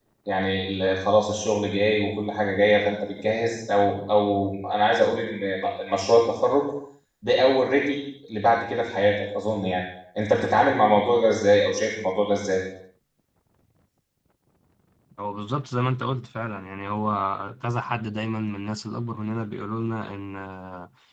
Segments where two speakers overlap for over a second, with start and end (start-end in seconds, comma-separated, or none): none